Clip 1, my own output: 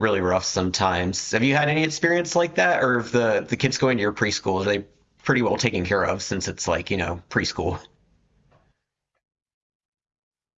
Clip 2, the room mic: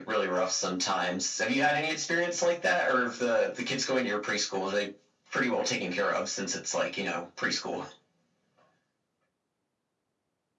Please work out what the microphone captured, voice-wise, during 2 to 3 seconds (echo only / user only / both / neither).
echo only